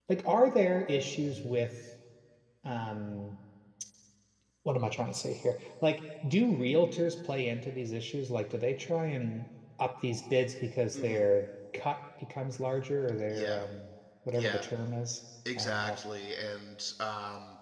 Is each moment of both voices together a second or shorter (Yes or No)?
Yes